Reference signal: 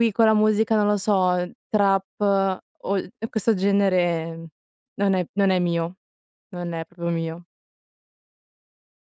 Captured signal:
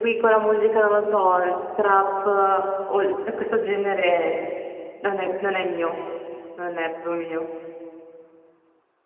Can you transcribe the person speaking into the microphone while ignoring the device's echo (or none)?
none